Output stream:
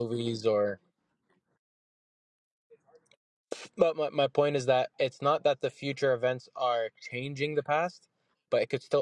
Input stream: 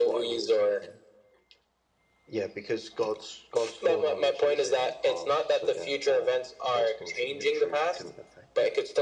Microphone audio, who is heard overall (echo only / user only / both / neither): both